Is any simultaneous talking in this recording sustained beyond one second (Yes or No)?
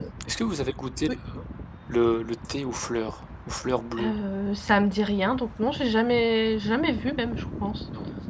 No